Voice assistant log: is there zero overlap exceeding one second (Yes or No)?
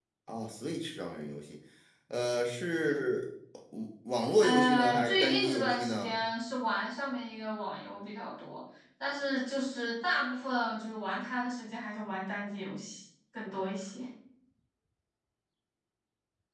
No